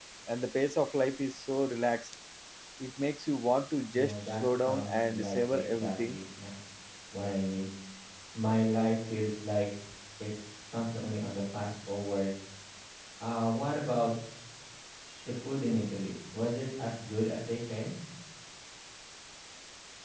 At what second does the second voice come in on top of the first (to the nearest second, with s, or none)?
4 s